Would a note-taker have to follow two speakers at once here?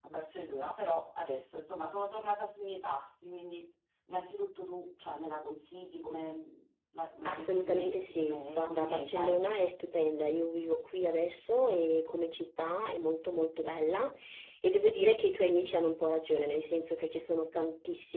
Yes, from 7.2 s

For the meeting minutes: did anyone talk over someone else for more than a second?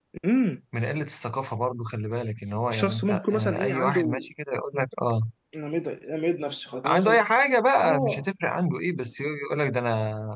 Yes, from 2.7 s

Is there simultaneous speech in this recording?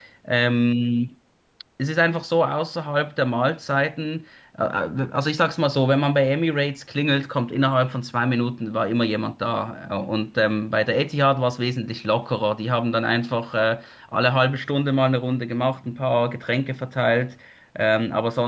No

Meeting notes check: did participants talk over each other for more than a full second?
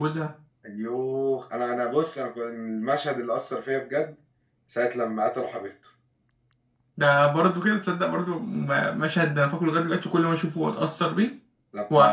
No

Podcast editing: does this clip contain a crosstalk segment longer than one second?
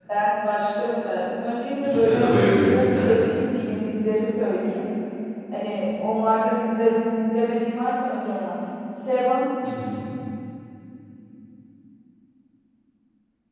Yes, from 1.8 s

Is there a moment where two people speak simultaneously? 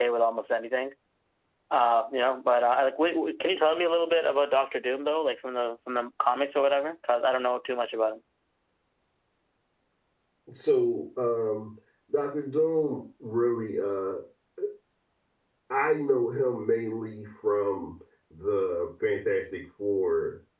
No

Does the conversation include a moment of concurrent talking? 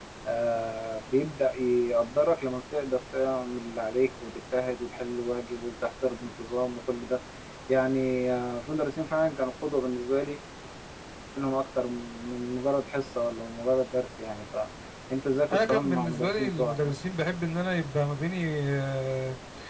Yes, from 15.5 s

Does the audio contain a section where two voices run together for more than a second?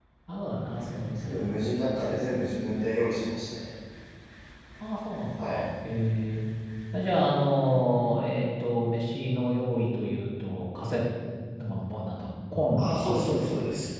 No

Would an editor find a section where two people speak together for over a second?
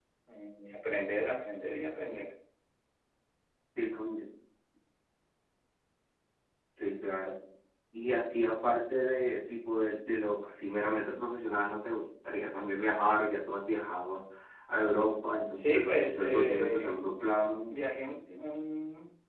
Yes, from 15.5 s

